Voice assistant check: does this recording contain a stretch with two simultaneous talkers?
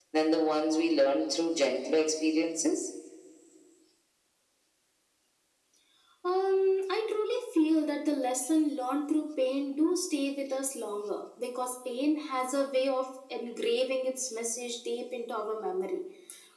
No

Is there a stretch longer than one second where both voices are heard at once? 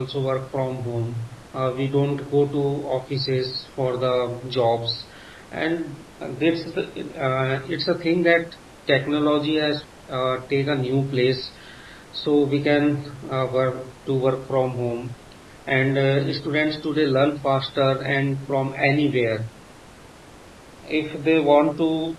No

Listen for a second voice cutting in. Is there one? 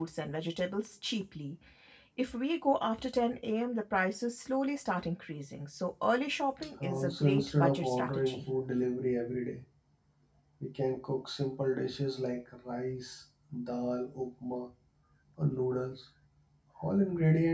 Yes, from 6.8 s

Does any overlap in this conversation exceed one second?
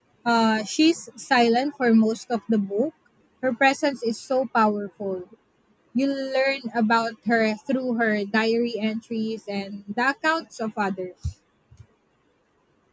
No

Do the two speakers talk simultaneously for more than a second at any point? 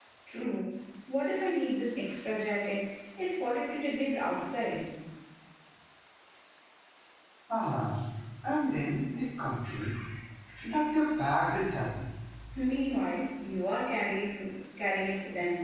No

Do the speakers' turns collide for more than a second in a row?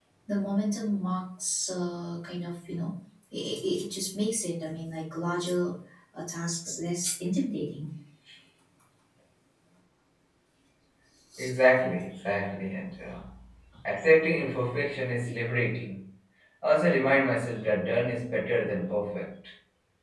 No

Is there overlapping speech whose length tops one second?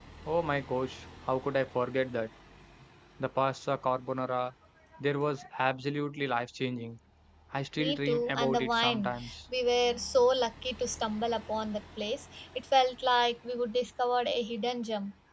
Yes, from 7.8 s

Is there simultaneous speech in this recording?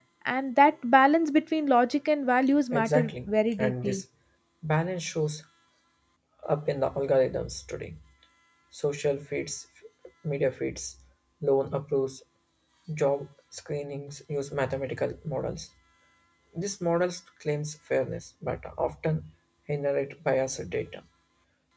Yes, from 2.7 s

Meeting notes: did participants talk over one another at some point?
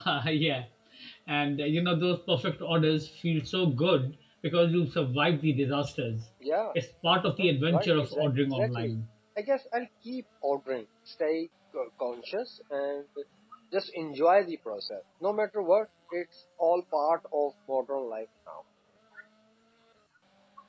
Yes, from 7.4 s

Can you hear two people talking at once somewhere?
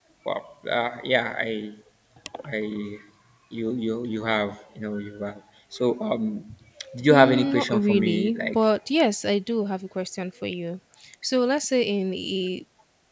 Yes, from 7.1 s

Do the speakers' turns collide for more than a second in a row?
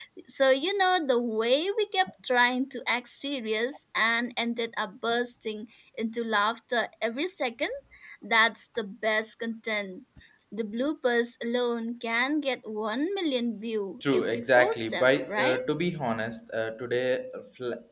Yes, from 14.0 s

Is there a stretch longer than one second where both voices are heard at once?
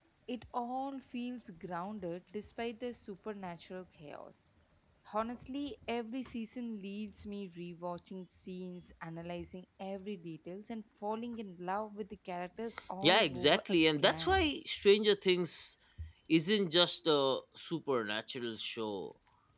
Yes, from 13.0 s

